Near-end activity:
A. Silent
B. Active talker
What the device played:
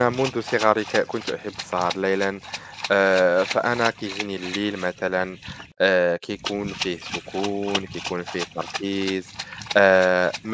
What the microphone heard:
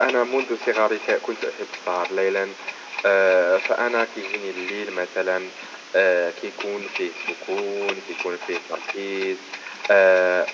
A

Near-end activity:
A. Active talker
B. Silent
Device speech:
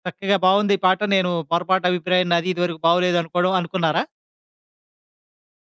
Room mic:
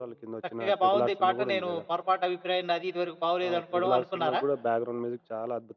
A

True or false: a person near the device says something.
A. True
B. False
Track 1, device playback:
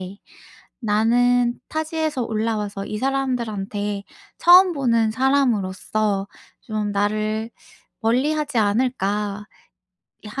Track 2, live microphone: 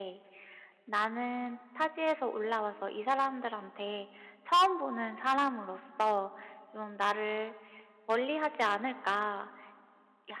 B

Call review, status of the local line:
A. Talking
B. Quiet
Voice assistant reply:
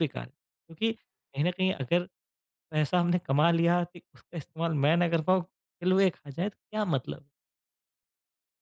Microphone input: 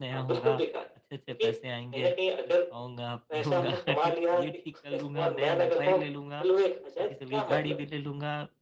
A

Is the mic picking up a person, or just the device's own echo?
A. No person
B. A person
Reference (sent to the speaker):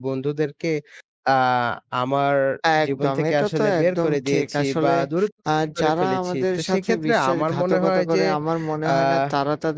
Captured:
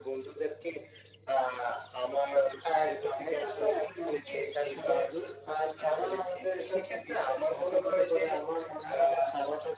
A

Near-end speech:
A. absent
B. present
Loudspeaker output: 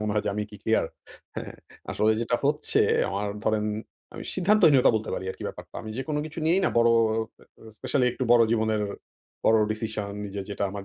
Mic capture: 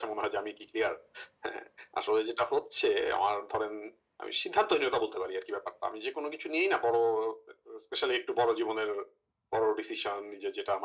A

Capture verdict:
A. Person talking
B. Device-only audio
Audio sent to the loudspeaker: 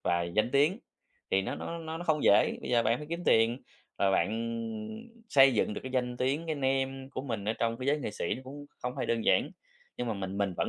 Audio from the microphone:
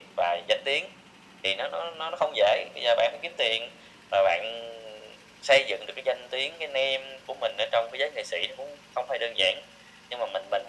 B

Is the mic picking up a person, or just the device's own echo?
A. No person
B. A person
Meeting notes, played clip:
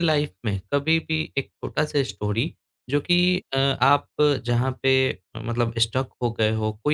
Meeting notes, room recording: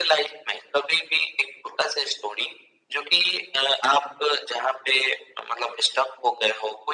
A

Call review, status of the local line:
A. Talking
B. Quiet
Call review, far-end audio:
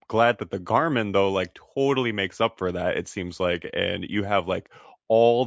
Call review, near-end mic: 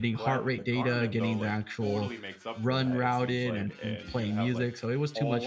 A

